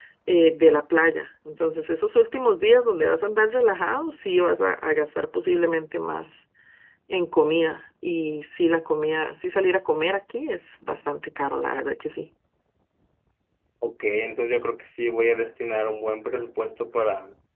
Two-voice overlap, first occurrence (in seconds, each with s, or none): none